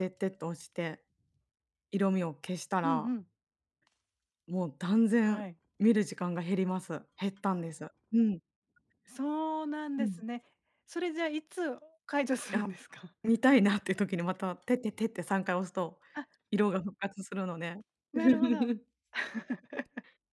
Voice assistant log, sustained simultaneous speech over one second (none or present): none